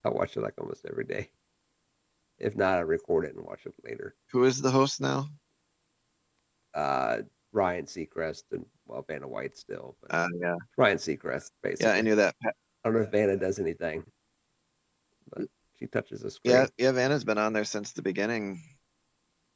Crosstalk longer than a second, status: none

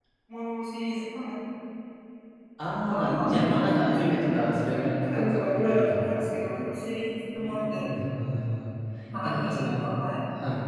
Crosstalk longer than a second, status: present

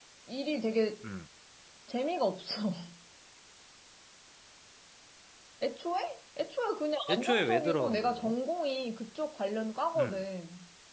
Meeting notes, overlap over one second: present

